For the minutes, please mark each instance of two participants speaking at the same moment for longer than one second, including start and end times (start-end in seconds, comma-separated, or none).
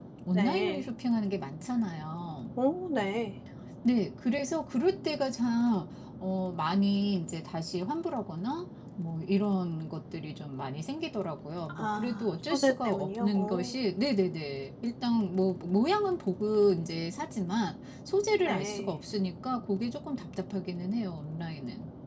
11.8-13.7